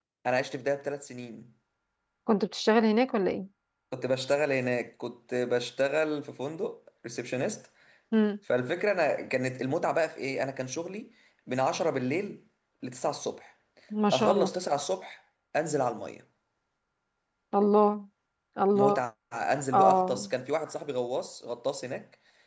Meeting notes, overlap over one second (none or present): none